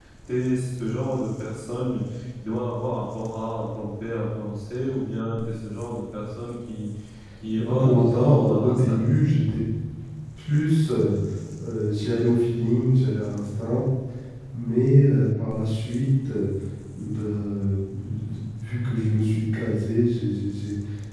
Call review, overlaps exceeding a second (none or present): present